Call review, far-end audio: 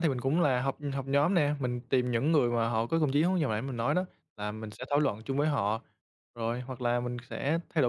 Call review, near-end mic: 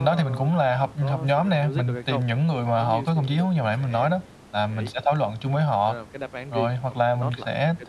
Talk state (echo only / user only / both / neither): both